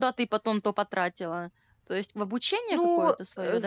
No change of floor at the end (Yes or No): No